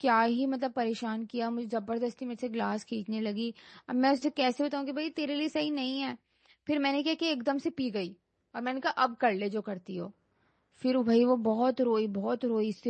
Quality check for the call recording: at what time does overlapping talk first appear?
none

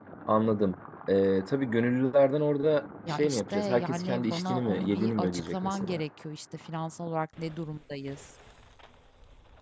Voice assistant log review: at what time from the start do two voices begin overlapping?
3.1 s

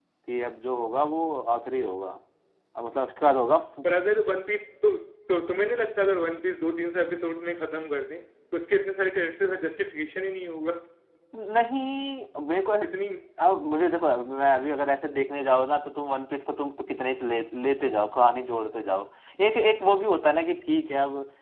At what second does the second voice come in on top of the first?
none

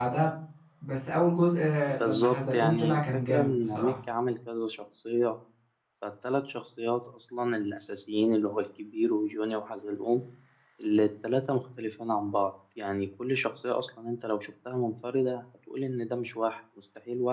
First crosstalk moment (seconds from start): 1.9 s

